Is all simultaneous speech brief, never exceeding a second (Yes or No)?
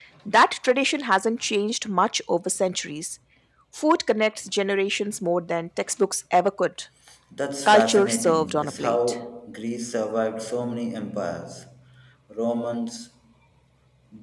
No